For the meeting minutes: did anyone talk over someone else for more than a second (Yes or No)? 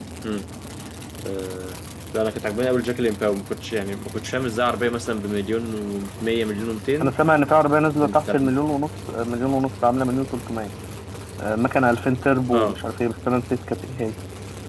No